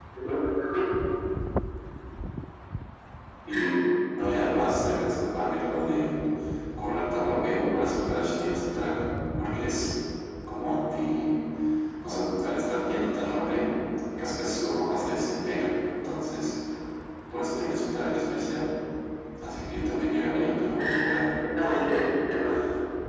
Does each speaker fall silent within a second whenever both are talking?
Yes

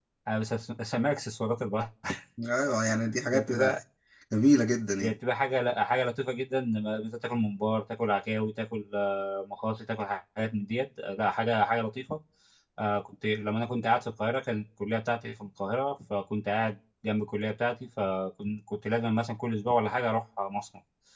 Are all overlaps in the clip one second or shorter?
Yes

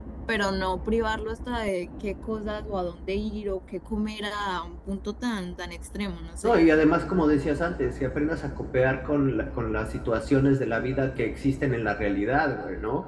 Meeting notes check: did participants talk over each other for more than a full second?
No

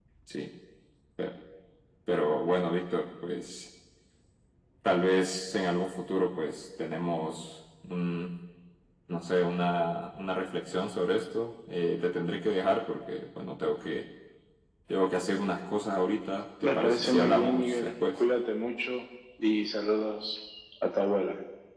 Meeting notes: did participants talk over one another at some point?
Yes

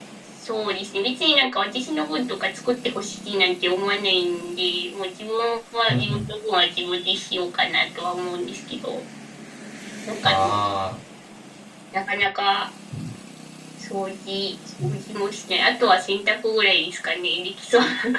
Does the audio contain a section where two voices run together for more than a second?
No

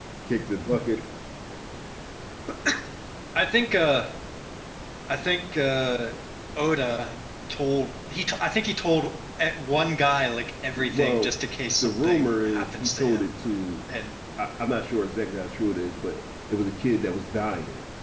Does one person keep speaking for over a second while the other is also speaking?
Yes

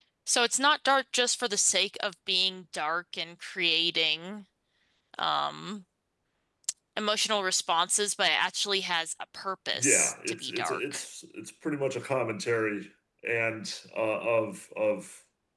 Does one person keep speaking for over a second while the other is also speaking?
Yes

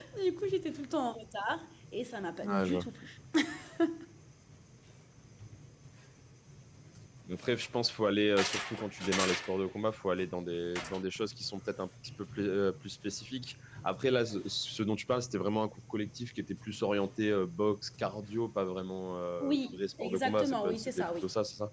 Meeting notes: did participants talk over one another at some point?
Yes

